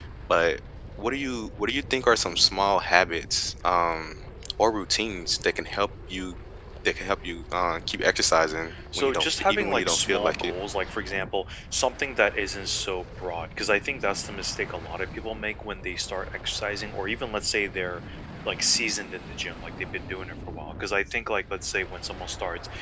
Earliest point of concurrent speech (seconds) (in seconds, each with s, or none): 8.7 s